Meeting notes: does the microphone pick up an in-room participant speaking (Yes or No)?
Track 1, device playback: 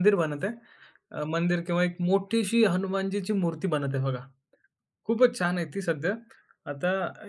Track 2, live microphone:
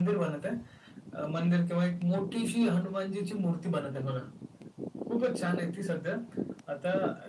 No